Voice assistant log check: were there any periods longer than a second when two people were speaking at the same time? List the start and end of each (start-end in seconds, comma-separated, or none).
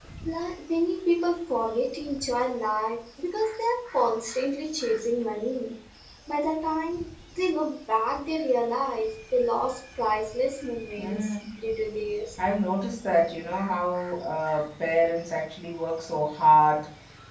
none